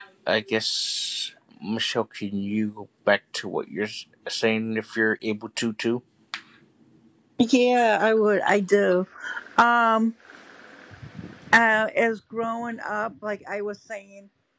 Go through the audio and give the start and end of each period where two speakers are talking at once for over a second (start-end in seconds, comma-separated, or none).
none